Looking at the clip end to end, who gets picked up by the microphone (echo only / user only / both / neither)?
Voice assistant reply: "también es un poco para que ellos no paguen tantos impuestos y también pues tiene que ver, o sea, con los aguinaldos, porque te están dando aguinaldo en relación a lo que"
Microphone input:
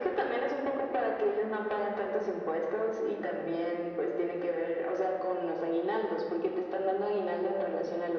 echo only